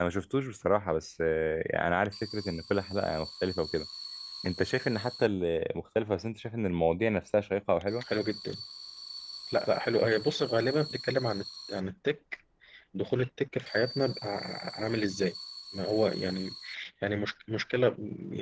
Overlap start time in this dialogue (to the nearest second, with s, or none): none